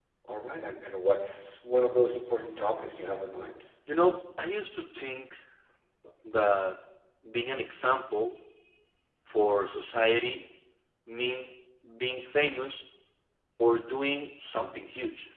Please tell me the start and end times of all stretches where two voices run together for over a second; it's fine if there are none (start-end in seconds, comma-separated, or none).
none